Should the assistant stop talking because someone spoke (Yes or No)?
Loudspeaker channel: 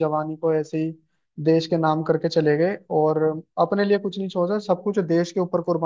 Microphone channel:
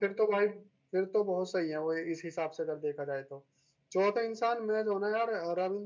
Yes